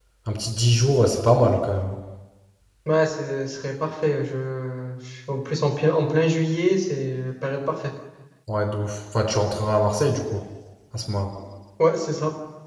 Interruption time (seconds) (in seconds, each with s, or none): none